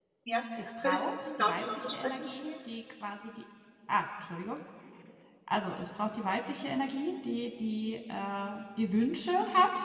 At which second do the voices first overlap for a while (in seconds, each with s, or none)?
0.8 s